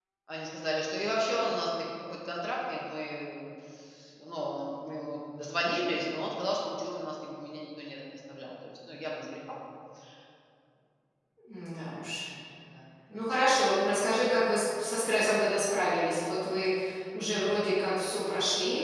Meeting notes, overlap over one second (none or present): none